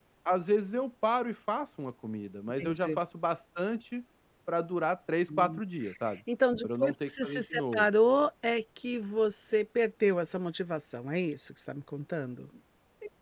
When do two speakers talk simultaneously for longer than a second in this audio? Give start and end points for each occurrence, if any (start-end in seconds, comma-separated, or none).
6.6-7.9